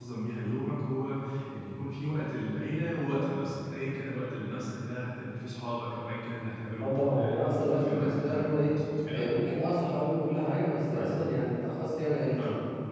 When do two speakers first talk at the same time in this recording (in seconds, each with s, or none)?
6.8 s